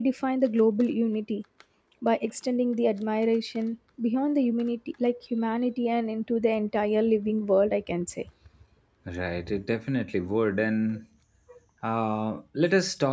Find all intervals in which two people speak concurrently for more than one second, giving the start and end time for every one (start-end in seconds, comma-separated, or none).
none